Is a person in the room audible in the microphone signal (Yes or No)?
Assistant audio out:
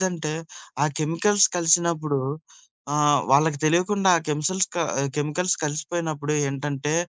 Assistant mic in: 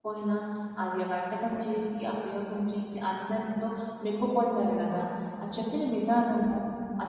Yes